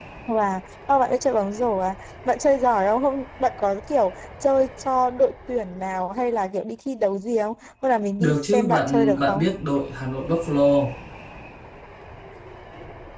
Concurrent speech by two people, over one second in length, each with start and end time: 8.2-9.5

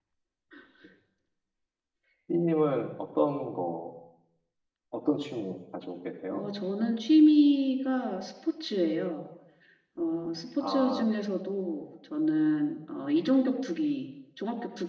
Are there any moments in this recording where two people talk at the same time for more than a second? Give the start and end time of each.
none

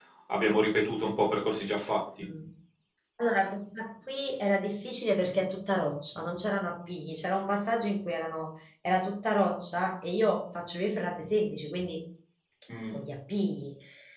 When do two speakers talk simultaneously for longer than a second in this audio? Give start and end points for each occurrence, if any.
none

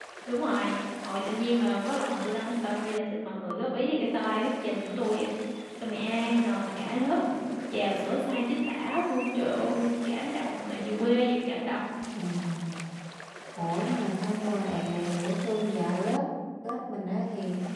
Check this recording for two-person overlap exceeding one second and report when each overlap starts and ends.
none

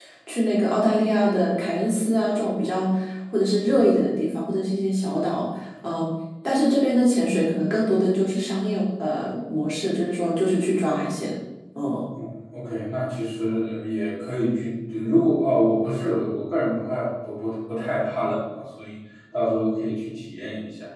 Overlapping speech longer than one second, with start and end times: none

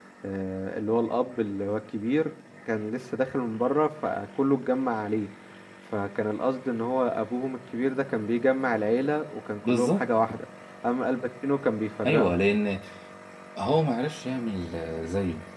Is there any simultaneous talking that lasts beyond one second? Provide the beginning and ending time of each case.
none

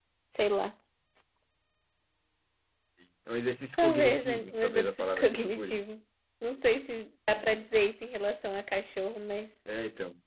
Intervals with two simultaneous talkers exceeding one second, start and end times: 3.8-5.8

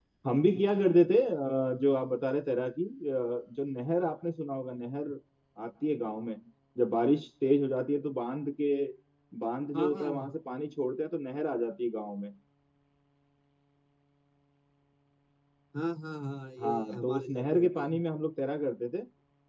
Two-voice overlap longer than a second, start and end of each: 16.6-17.9

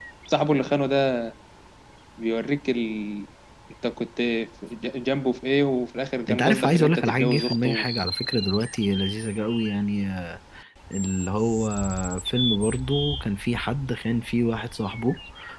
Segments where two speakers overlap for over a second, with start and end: 6.3-7.9

